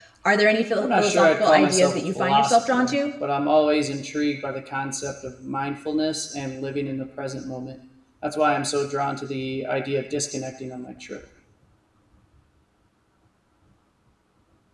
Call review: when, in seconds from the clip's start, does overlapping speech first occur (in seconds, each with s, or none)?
0.8 s